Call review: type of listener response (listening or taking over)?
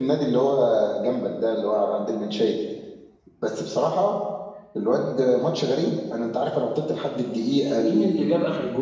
taking over